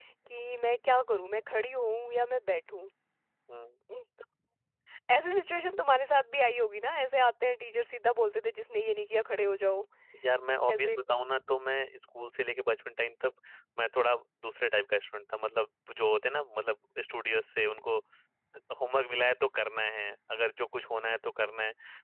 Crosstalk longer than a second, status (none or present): none